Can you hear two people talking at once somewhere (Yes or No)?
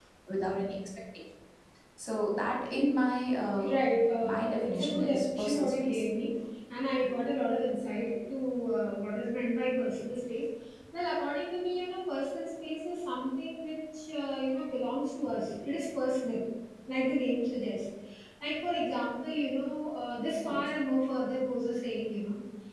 Yes